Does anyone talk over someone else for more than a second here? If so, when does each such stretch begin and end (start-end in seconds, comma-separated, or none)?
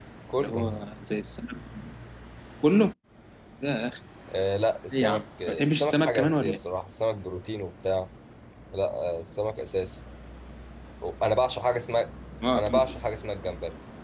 4.9-6.6